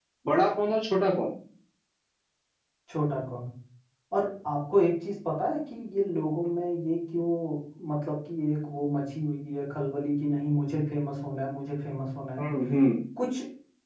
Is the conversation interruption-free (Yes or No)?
Yes